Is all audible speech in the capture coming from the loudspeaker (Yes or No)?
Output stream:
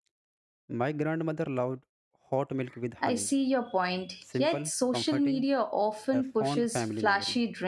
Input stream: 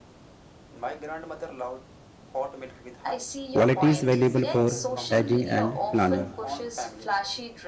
No